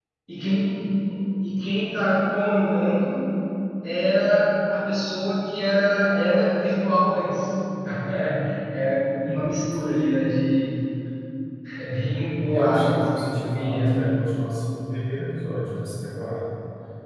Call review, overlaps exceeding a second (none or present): present